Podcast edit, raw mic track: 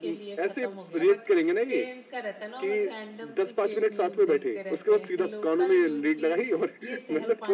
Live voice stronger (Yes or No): No